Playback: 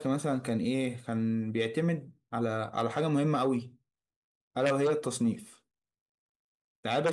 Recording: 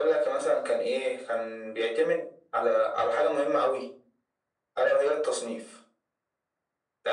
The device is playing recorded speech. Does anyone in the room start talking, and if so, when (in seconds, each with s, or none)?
none